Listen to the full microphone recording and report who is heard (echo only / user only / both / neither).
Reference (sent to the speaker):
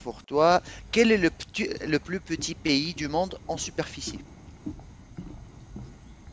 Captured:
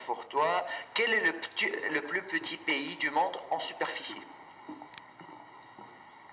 echo only